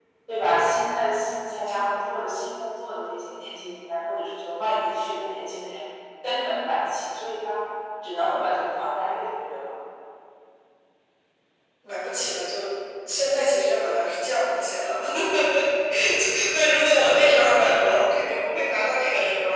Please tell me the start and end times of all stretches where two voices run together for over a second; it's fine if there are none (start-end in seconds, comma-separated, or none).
none